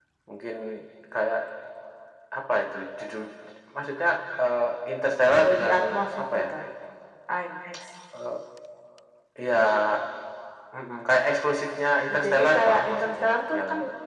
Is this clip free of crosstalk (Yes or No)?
No